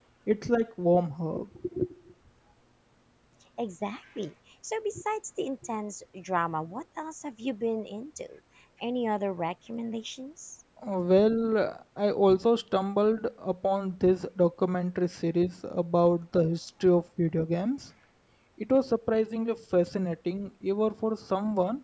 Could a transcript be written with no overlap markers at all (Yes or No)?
Yes